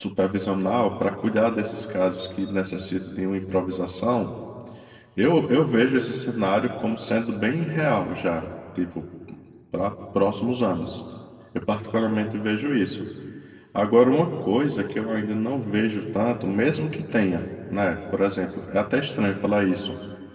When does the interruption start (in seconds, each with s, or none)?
none